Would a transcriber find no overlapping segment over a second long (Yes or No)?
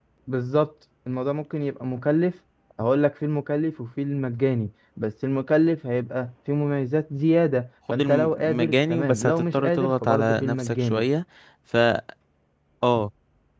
No